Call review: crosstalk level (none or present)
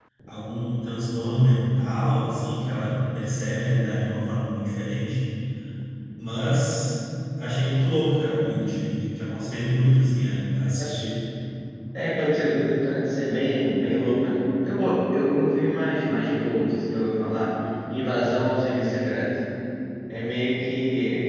none